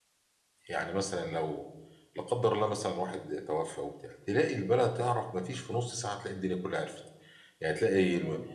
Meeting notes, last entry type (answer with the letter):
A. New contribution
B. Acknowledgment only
B